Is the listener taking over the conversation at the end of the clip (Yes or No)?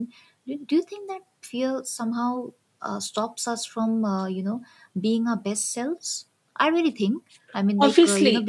Yes